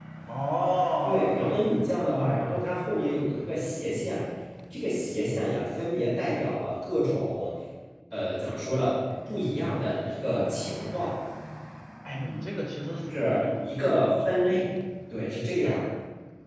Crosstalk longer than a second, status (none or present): present